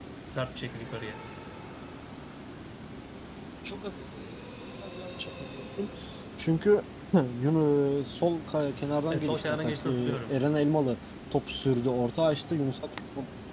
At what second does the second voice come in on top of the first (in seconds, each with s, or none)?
9.1 s